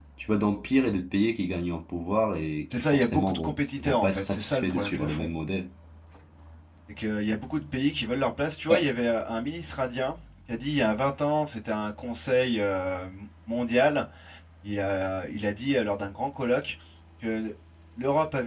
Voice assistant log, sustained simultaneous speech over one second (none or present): present